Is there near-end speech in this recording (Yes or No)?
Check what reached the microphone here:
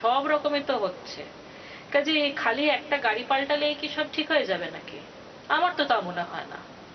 Yes